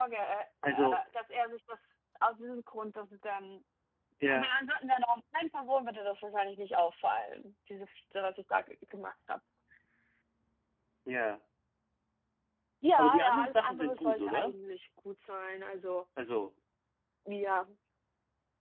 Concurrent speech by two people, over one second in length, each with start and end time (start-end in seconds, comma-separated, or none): 13.0-14.6